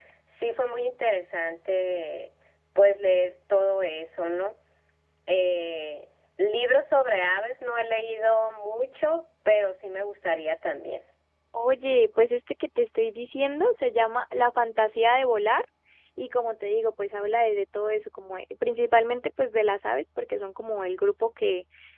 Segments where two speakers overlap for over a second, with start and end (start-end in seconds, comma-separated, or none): none